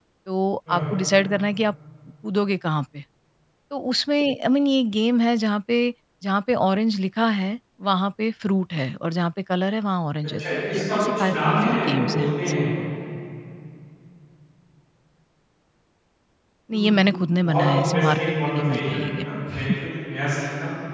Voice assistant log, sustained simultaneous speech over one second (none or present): present